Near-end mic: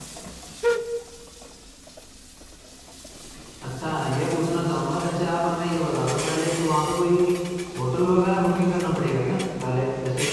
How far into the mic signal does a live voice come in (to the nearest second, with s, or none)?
4 s